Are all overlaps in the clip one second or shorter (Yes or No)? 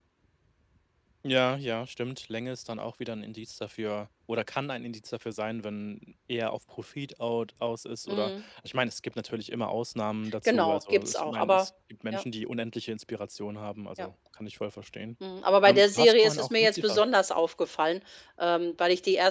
No